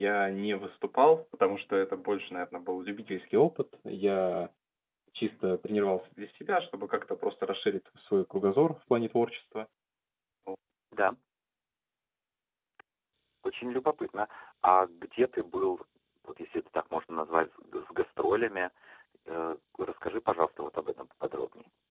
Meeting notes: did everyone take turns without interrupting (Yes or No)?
Yes